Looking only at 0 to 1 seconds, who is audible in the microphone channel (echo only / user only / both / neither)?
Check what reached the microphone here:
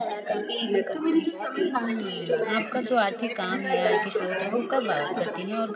echo only